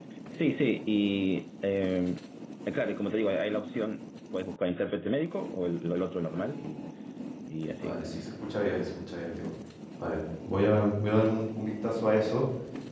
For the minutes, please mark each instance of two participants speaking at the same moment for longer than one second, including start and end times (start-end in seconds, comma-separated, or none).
none